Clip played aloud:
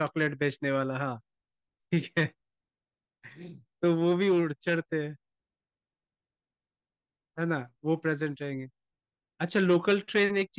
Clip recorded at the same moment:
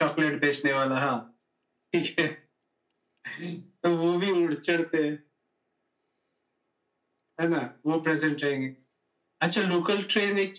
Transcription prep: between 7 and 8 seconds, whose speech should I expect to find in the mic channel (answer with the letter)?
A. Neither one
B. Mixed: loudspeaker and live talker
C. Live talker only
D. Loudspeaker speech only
D